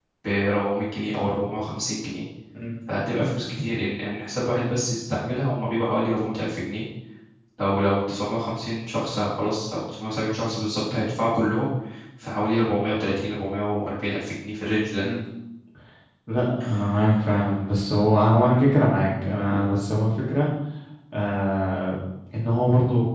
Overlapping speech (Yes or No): No